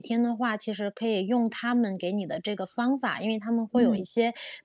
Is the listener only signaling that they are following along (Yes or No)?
Yes